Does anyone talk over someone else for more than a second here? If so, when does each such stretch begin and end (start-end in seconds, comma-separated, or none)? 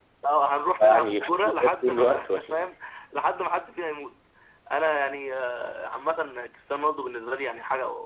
0.9-2.7